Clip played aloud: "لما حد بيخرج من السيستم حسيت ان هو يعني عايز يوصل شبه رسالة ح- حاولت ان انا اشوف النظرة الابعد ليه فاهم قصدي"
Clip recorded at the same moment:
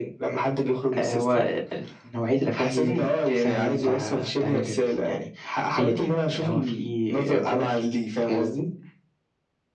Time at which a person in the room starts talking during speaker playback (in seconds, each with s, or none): 1.0 s